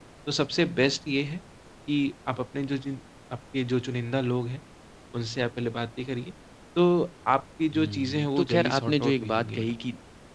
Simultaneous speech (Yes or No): Yes